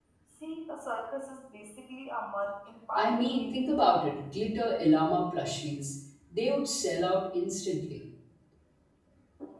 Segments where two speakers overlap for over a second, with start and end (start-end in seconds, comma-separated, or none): 2.9-4.2